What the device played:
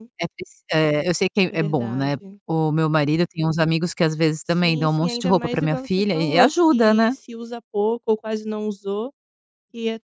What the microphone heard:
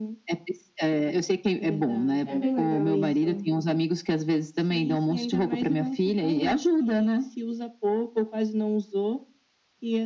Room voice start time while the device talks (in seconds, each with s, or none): 2.2 s